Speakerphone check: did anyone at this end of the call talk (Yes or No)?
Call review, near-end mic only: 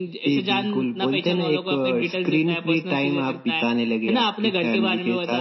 No